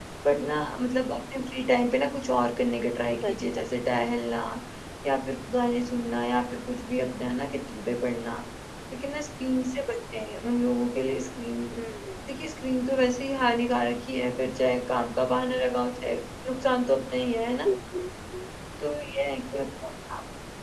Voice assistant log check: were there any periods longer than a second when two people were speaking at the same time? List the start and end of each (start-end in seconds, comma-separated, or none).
none